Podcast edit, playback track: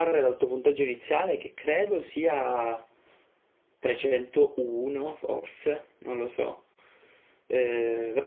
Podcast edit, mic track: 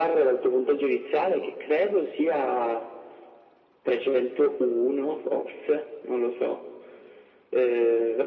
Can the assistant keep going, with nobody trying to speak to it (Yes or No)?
Yes